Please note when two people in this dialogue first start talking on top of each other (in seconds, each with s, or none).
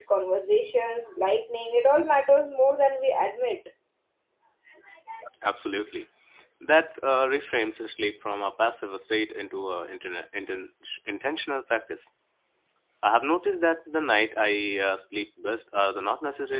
none